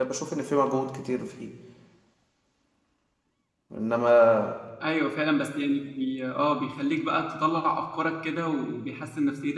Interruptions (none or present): none